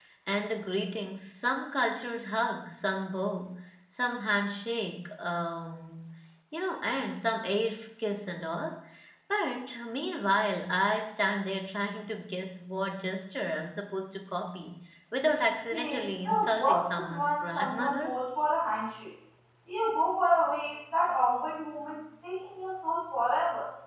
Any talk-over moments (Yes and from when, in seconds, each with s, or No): Yes, from 15.7 s